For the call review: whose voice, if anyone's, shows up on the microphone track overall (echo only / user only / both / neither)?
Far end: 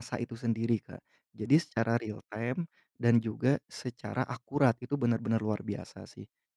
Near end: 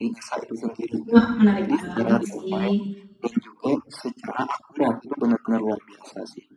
both